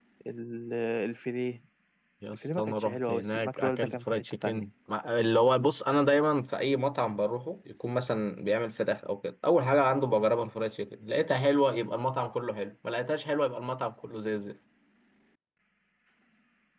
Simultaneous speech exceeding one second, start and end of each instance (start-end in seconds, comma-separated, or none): 2.3-4.6